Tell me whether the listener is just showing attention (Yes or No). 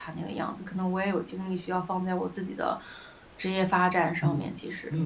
No